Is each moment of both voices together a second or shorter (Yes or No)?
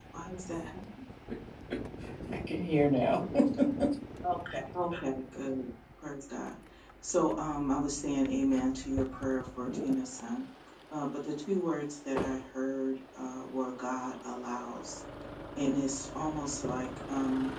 Yes